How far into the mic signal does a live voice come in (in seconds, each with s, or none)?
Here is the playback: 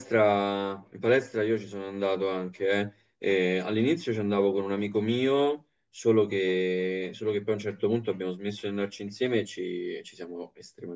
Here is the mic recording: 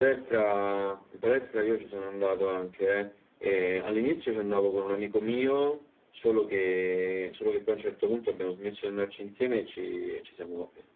none